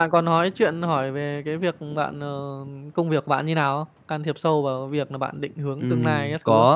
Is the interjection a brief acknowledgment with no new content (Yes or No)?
No